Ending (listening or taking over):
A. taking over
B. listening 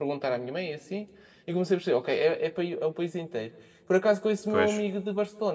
B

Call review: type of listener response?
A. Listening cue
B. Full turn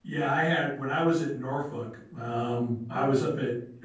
A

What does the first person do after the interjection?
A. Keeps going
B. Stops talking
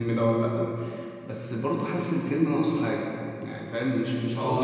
B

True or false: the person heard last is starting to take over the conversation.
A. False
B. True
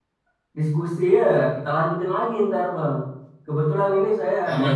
A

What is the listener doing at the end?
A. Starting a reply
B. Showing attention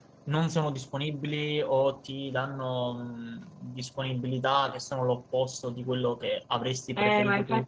A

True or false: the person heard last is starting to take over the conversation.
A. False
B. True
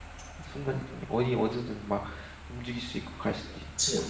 B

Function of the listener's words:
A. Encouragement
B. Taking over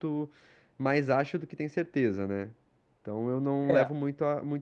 A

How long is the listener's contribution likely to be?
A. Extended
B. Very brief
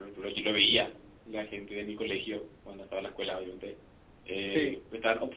B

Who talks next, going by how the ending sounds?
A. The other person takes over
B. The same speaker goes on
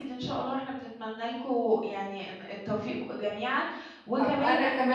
A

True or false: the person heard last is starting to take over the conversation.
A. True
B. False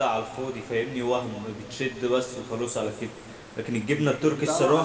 A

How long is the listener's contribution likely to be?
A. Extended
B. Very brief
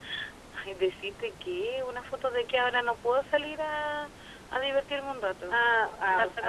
A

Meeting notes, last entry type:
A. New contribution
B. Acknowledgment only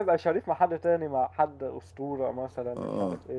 A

